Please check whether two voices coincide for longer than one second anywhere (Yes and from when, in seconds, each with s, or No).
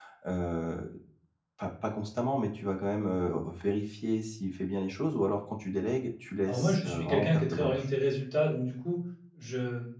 Yes, from 6.5 s